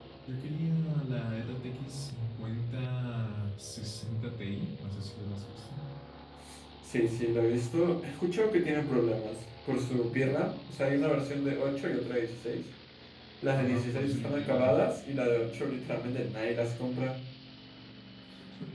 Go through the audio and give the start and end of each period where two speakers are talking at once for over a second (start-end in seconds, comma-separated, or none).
13.6-14.8